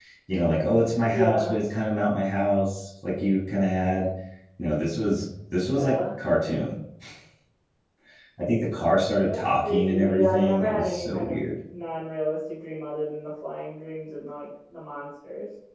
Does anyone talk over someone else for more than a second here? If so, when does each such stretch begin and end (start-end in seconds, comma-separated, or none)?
9.3-11.5